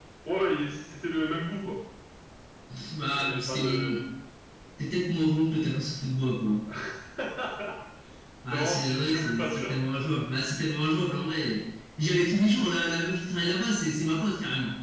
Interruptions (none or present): present